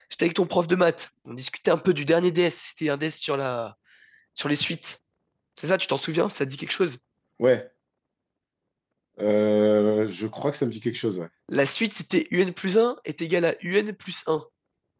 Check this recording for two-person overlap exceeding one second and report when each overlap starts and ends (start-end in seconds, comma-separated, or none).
none